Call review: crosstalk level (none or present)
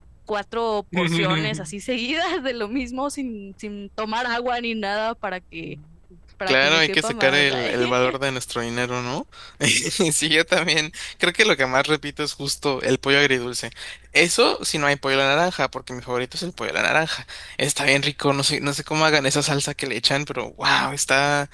present